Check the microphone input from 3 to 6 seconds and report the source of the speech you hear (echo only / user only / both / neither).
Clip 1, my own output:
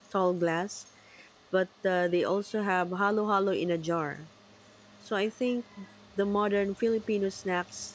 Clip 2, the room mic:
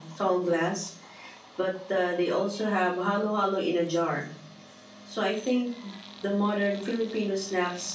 echo only